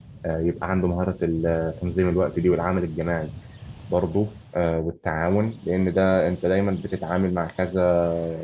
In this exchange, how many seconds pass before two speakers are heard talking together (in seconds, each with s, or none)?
none